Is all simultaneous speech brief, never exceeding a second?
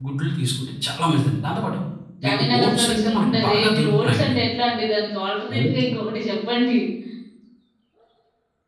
No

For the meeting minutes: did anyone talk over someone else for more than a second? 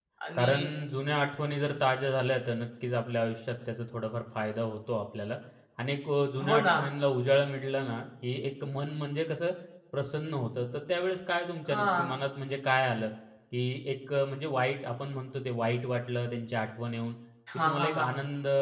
No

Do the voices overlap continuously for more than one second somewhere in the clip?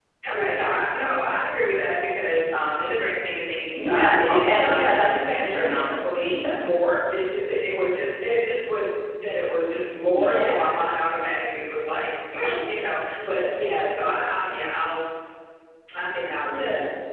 Yes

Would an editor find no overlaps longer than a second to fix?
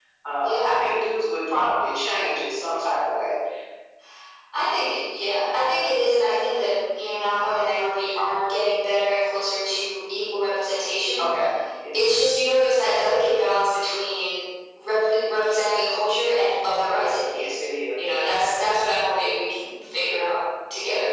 Yes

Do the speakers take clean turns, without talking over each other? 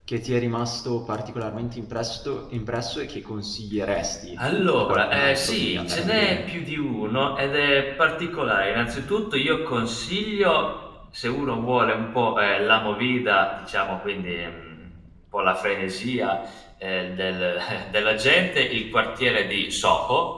No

